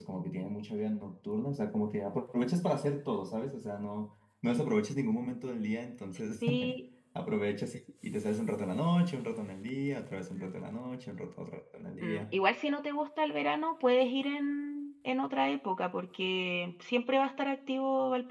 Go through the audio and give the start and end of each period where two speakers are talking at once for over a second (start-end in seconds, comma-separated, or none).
none